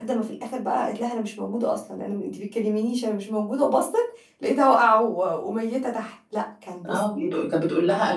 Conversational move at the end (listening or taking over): taking over